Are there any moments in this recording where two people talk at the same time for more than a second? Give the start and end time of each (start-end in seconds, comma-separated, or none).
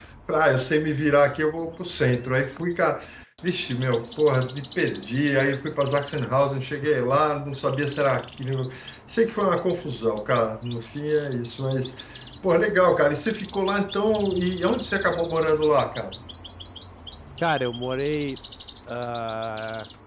none